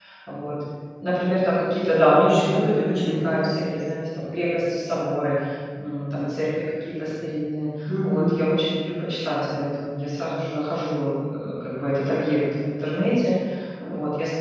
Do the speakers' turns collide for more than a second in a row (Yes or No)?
Yes